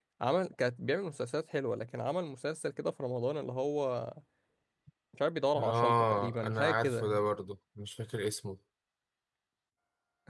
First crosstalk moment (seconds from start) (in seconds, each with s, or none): 5.6 s